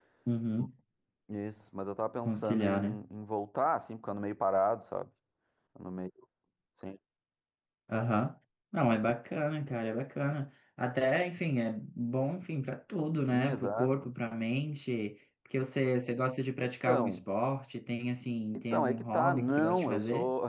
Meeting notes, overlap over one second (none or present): present